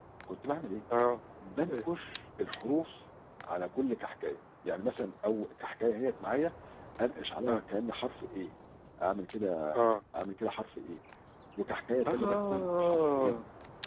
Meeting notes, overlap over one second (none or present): present